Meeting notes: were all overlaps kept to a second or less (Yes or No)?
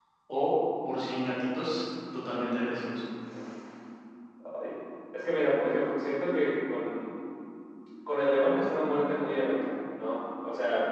Yes